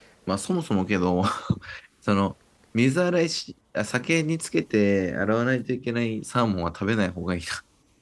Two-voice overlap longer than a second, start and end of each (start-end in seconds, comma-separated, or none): none